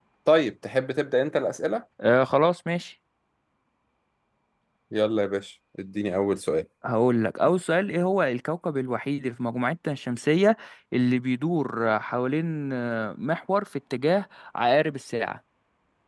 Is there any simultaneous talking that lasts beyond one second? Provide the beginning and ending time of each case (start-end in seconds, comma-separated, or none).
none